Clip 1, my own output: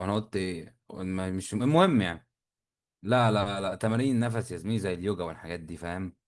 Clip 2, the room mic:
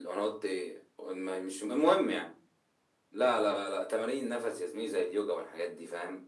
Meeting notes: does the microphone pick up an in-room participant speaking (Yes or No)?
No